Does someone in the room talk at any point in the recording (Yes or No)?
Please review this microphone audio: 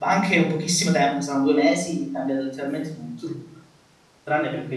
Yes